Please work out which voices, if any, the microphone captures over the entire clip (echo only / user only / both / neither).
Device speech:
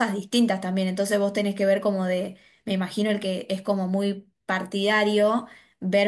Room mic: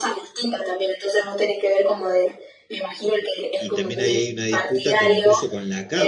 both